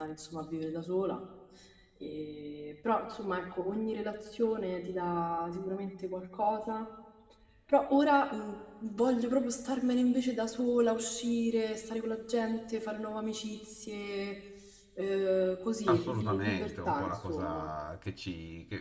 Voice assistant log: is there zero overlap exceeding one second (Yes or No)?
No